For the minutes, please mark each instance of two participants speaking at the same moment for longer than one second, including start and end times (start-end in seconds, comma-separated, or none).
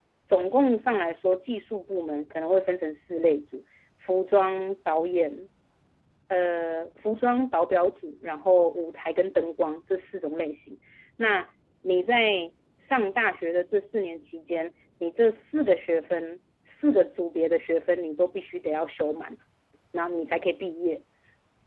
none